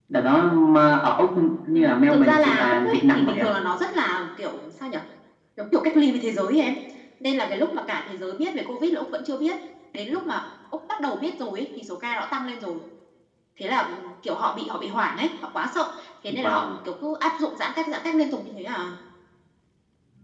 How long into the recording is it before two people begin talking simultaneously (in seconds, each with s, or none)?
1.7 s